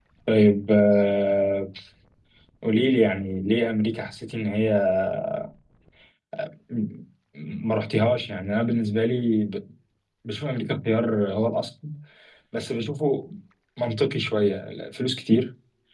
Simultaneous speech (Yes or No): No